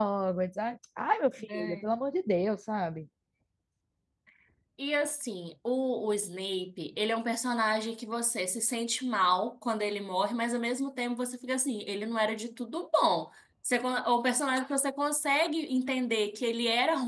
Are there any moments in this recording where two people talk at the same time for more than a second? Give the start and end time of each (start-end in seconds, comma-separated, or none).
none